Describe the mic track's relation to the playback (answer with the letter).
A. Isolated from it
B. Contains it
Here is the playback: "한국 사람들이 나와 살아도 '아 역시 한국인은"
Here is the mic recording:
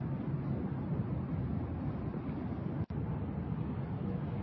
A